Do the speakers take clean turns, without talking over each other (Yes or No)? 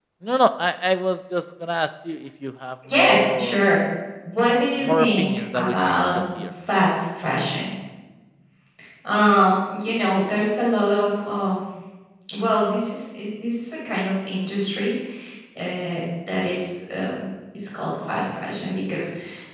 No